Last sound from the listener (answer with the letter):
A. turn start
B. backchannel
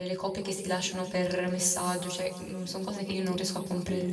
A